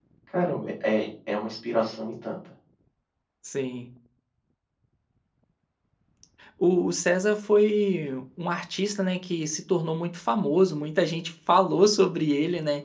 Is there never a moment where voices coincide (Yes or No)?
Yes